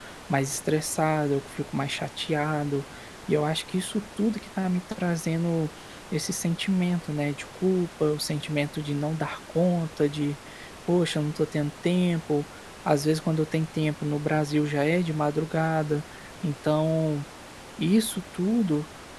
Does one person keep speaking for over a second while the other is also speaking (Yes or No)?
No